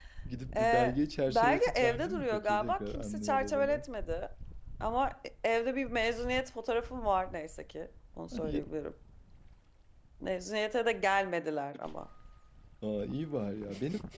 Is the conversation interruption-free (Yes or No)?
No